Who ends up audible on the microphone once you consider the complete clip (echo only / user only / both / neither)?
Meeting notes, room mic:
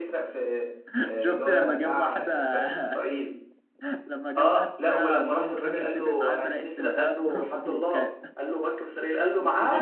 both